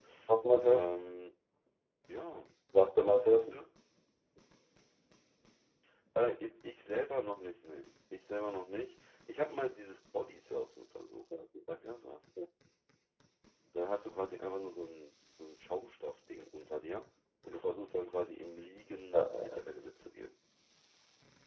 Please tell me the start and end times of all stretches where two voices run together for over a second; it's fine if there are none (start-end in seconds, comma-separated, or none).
none